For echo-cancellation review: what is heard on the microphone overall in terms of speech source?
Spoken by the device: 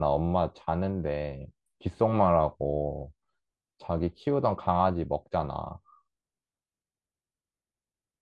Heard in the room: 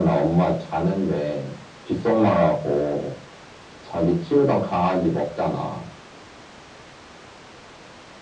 echo only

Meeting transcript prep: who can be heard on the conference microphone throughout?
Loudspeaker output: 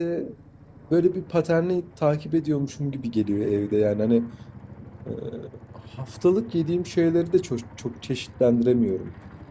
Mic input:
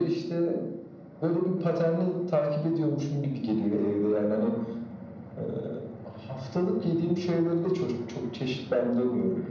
echo only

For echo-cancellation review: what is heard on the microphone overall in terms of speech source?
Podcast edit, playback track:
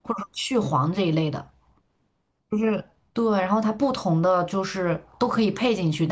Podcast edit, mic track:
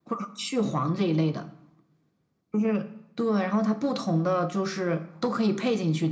echo only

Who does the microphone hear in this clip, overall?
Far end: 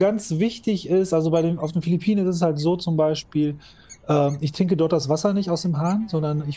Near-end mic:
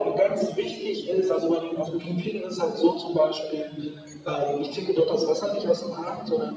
echo only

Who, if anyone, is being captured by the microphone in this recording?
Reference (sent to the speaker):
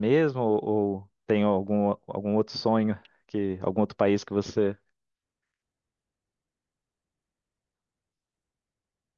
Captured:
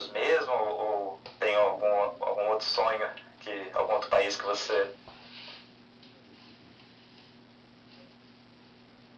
echo only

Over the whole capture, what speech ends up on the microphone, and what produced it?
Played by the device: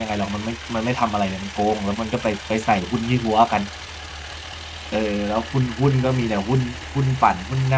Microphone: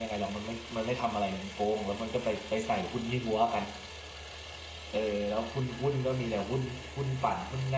echo only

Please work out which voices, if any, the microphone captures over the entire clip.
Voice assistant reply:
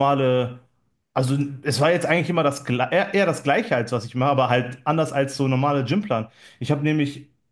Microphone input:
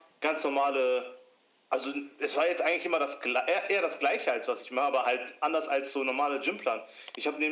echo only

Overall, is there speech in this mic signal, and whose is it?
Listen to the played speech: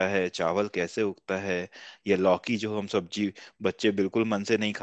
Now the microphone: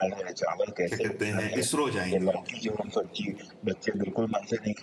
both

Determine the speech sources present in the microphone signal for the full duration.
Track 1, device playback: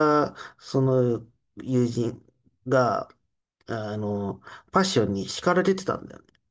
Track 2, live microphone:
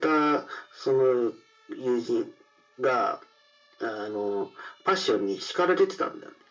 echo only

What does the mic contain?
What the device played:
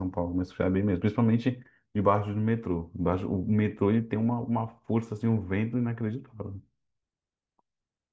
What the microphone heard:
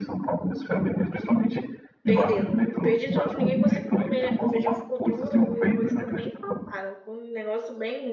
both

